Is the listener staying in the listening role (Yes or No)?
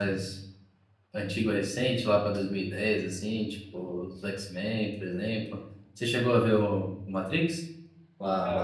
No